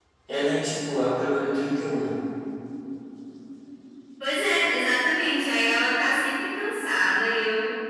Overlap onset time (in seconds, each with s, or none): none